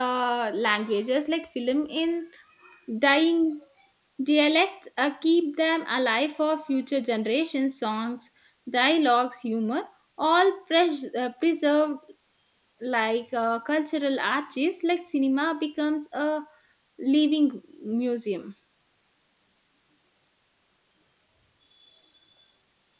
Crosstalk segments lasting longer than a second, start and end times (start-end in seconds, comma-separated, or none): none